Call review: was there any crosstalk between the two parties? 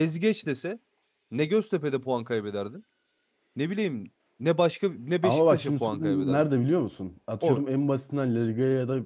Yes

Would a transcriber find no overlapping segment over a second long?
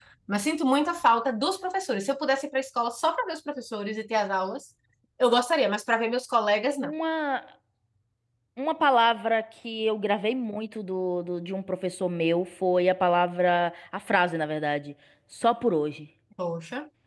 Yes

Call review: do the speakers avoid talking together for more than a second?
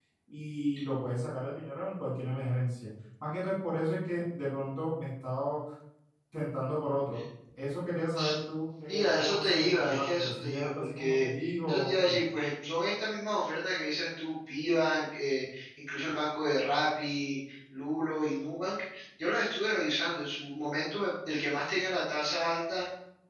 No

